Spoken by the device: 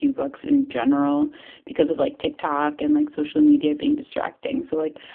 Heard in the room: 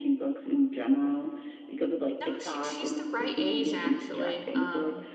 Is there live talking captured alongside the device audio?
Yes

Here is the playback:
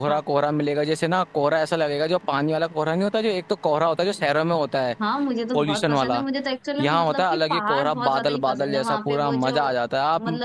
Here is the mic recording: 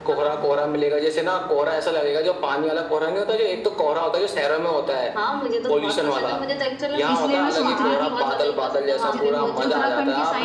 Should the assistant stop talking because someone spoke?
Yes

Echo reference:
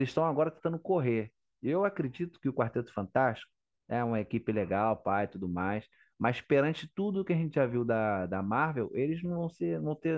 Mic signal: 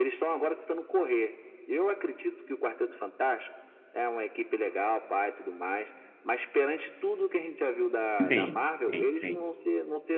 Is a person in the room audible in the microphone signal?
Yes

